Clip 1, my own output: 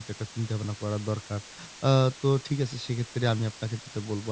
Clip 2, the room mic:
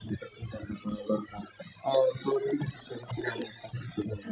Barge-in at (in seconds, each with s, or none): none